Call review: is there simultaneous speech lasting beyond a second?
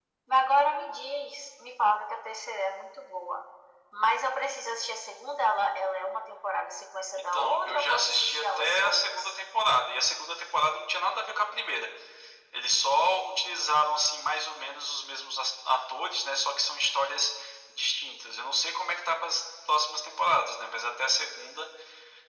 Yes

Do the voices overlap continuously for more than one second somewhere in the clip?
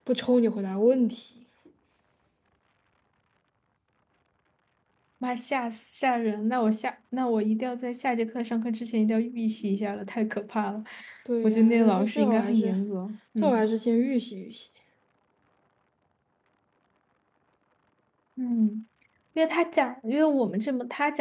Yes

